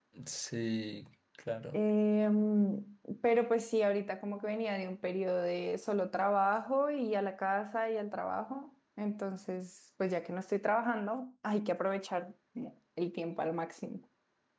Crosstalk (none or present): none